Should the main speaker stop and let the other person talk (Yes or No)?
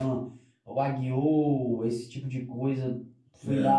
No